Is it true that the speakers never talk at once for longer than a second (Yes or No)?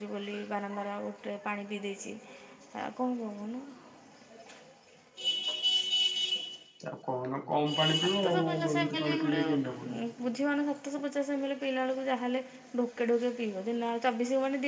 No